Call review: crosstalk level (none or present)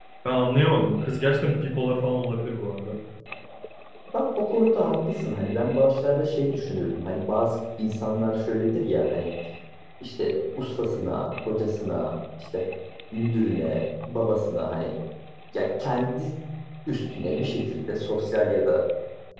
none